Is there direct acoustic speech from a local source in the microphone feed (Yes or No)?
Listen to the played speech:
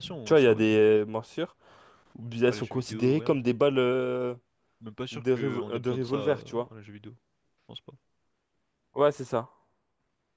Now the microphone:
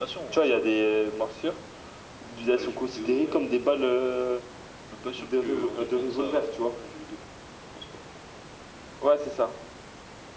No